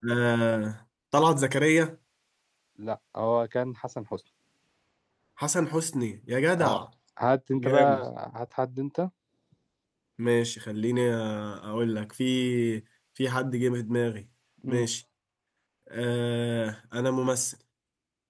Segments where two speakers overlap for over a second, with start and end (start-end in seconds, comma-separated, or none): none